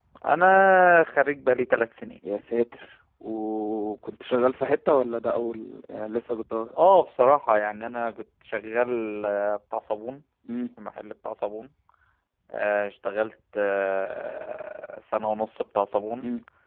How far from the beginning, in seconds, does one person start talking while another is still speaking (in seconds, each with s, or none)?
none